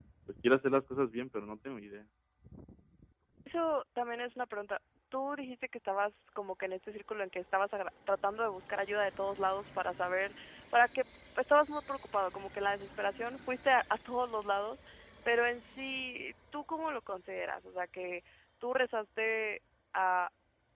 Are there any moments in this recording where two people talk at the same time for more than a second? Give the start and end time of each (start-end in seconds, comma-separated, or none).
none